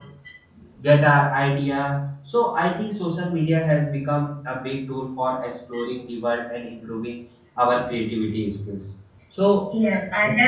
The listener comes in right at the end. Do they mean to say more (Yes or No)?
Yes